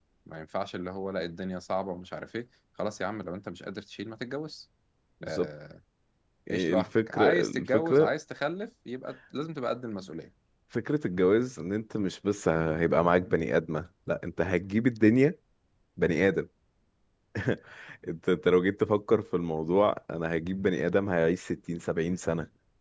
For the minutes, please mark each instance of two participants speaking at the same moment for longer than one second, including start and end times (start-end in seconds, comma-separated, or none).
6.5-8.1